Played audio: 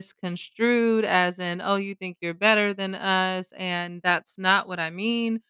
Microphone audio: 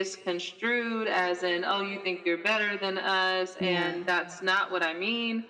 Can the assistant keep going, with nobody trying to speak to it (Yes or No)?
No